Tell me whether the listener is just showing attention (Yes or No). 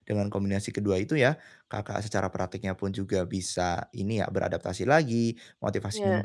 Yes